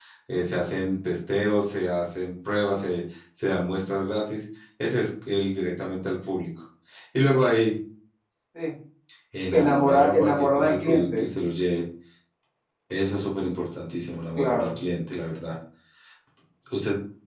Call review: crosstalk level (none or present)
present